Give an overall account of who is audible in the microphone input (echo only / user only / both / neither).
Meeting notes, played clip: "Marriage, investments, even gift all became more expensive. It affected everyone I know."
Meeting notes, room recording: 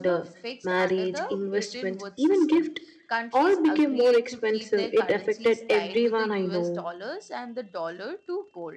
both